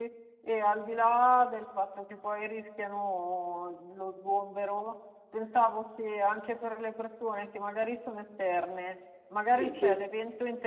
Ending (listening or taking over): listening